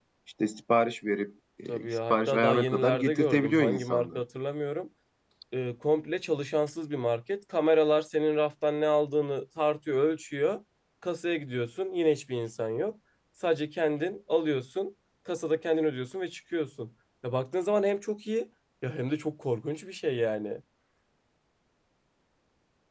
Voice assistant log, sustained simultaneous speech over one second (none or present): present